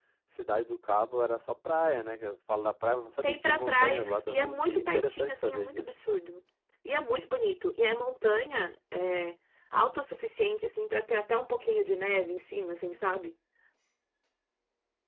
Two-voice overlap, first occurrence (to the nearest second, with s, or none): 3 s